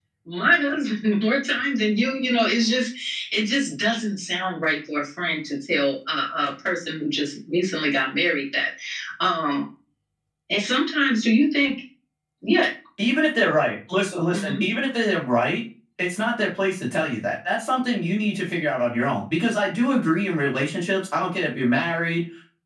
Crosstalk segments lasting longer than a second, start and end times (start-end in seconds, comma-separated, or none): none